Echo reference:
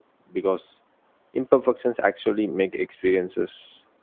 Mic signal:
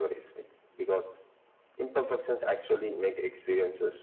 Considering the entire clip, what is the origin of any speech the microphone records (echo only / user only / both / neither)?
echo only